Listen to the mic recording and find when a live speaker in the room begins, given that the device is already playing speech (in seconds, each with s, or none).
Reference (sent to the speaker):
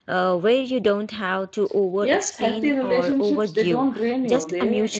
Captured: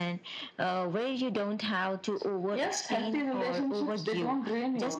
none